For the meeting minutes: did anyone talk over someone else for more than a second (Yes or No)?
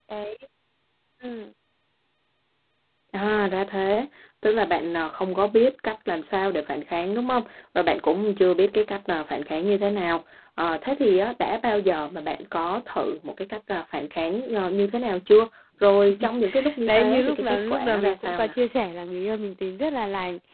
Yes